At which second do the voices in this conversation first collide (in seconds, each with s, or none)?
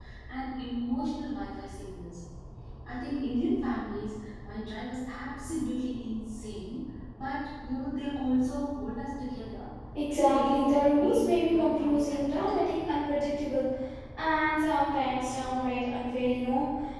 10.1 s